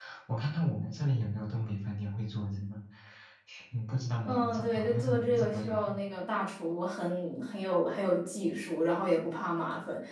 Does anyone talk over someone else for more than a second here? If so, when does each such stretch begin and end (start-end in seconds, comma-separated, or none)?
4.3-5.9